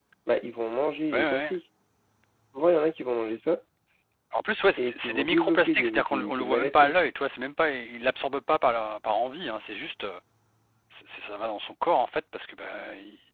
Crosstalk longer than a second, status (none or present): present